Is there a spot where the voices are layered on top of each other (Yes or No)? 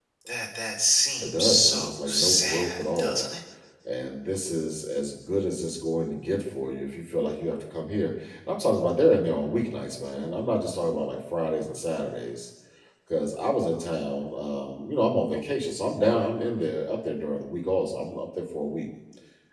Yes